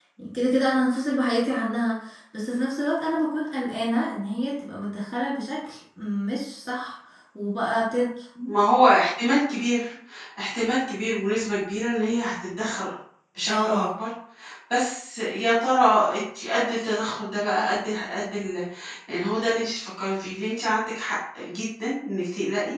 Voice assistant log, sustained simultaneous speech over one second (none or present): none